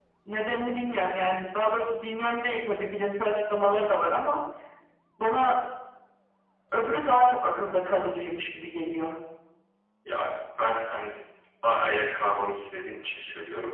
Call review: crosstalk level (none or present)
none